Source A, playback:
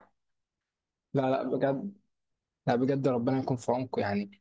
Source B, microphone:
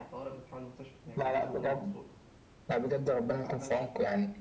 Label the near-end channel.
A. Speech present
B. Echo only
A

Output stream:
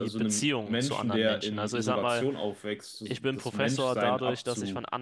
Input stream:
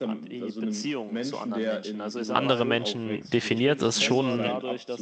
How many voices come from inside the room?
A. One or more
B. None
A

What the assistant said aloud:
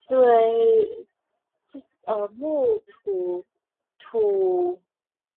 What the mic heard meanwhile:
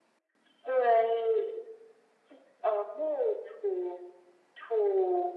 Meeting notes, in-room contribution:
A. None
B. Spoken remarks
A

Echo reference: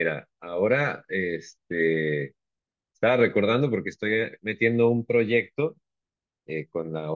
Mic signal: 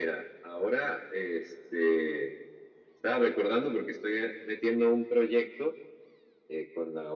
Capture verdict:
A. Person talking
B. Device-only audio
B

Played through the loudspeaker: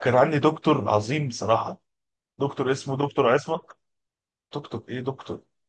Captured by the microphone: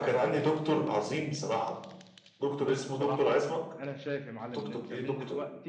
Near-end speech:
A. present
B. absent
A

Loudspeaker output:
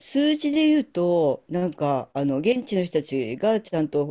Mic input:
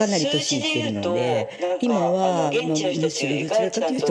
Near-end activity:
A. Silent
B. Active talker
B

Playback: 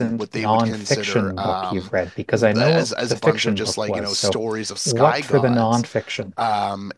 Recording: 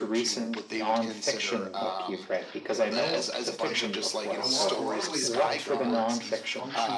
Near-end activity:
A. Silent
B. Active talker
B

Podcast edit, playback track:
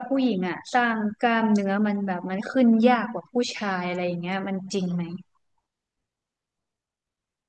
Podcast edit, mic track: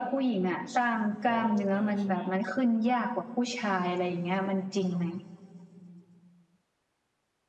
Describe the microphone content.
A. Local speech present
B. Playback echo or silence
A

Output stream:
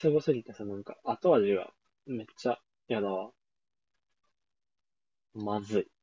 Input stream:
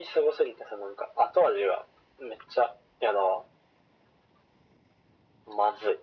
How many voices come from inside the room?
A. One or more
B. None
B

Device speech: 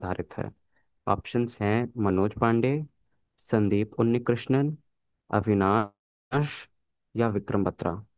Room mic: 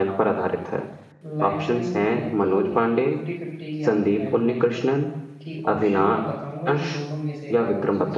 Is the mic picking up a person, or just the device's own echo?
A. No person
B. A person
B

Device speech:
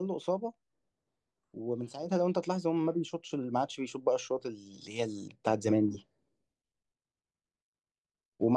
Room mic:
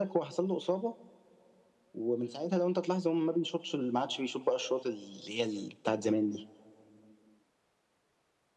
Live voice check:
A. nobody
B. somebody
A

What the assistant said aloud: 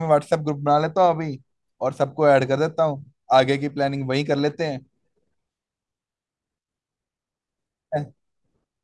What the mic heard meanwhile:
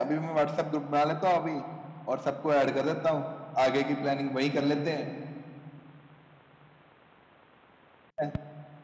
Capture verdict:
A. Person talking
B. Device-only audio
B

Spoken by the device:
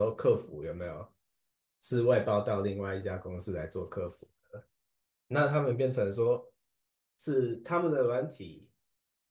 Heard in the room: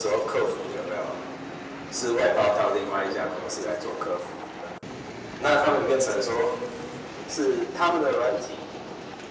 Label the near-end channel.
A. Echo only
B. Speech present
A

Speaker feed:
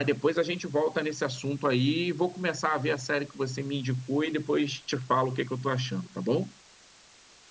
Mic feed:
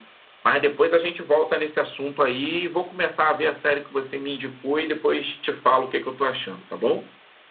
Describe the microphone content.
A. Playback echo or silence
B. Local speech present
A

